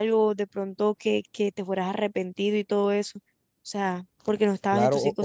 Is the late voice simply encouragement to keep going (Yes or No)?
No